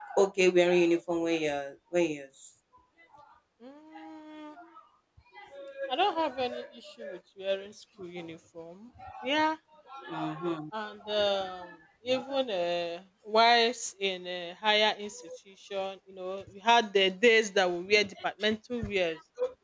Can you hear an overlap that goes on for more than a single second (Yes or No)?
No